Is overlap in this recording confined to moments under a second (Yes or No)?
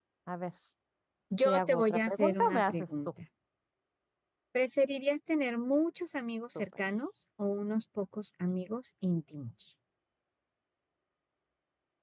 No